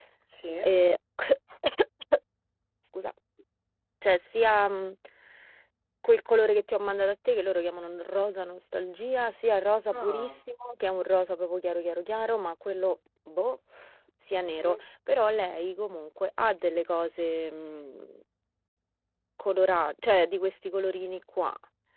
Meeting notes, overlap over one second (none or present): none